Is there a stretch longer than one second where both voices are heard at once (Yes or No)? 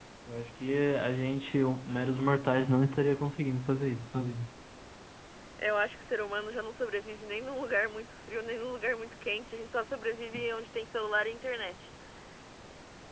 No